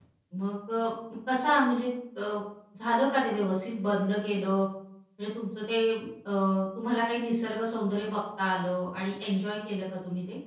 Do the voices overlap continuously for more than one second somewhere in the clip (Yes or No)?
No